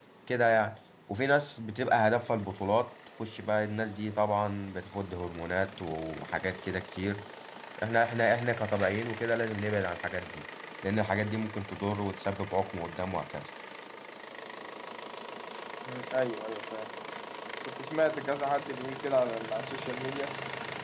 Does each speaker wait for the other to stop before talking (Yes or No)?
Yes